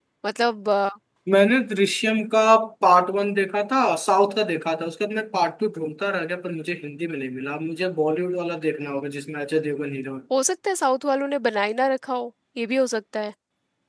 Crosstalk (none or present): none